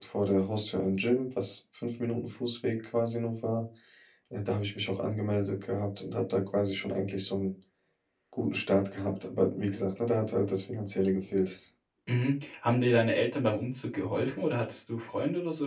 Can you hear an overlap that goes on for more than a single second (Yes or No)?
No